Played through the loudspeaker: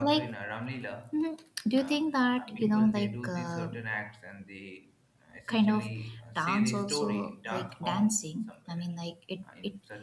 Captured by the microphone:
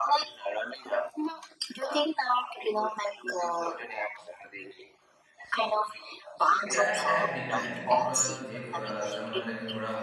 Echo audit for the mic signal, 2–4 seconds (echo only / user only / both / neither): echo only